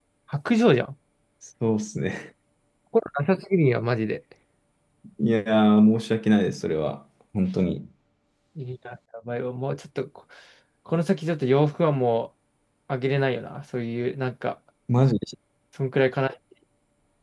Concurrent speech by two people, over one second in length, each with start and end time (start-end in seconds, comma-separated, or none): none